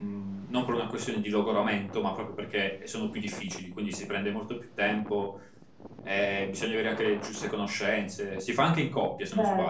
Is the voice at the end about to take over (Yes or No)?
No